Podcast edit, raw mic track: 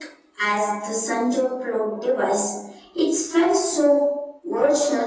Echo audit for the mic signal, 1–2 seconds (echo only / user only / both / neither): echo only